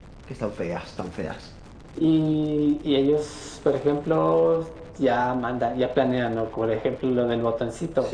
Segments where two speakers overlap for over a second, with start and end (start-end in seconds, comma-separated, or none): none